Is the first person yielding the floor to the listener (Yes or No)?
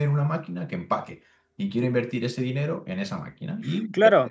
No